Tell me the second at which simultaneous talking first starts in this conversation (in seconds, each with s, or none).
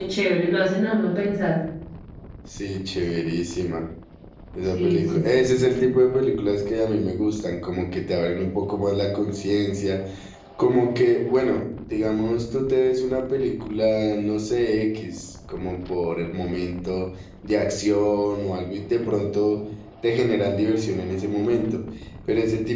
4.8 s